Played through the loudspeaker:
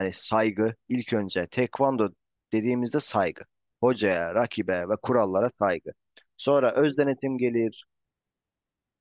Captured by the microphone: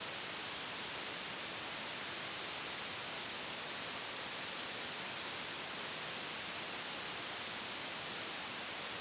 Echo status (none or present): none